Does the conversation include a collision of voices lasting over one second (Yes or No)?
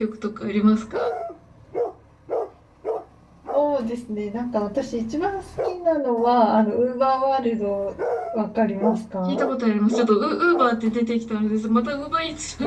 No